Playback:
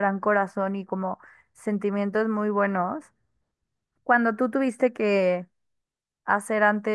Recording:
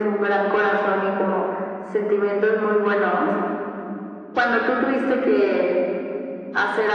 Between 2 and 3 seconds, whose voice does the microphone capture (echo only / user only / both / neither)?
echo only